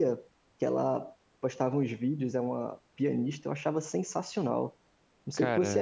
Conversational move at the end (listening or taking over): listening